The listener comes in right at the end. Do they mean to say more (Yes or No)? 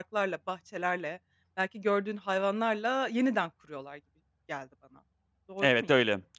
Yes